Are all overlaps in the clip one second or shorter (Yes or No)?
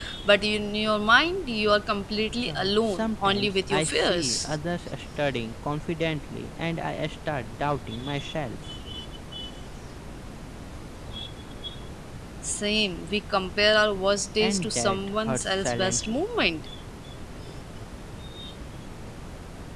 No